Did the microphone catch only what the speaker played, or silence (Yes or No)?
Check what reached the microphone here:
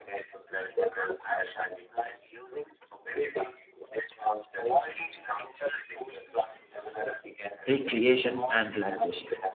No